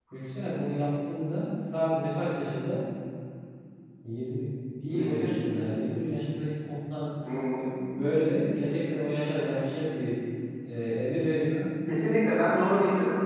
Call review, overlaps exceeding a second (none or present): none